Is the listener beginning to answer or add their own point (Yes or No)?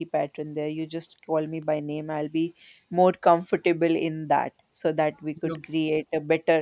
No